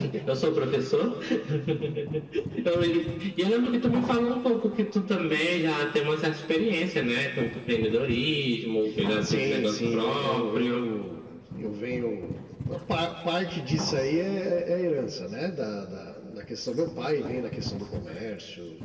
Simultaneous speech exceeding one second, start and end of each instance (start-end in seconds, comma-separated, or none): 9.2-10.9